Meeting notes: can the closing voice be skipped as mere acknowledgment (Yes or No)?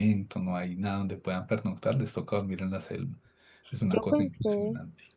No